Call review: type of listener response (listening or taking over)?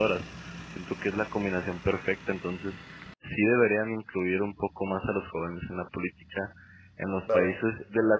listening